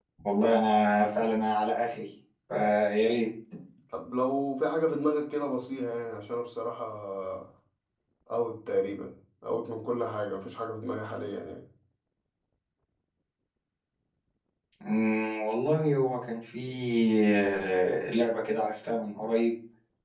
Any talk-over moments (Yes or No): No